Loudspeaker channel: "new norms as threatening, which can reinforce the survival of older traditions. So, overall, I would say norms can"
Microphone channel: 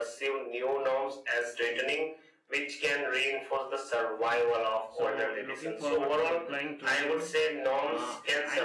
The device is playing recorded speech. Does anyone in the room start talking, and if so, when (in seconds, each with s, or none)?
4.9 s